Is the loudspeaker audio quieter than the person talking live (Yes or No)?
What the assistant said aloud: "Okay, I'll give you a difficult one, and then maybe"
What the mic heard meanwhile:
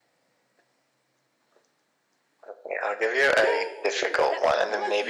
No